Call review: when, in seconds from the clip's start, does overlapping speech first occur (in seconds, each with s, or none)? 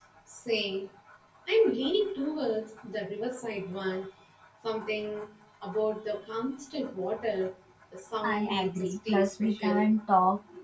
8.2 s